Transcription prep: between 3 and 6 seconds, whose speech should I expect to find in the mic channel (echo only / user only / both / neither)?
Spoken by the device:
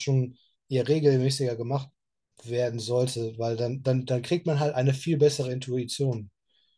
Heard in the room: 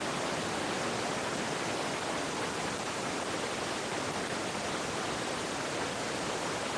neither